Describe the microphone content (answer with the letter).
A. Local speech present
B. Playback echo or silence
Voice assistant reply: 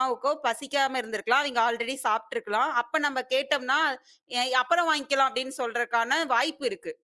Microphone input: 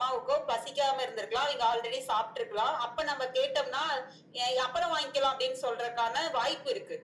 B